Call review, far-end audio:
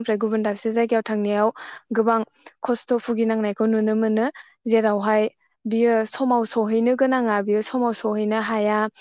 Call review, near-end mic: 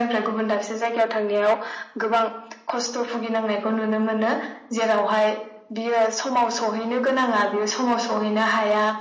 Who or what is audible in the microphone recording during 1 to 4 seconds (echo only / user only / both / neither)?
echo only